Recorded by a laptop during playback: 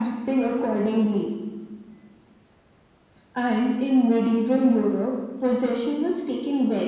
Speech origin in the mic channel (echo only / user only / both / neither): echo only